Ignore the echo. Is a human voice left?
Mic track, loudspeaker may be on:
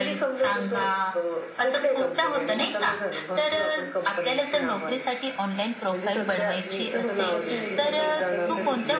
Yes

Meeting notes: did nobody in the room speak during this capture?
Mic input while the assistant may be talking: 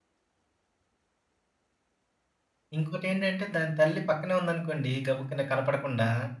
No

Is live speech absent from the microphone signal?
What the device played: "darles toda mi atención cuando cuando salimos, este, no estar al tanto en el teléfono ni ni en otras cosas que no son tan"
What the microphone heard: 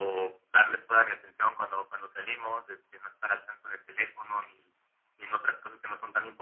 Yes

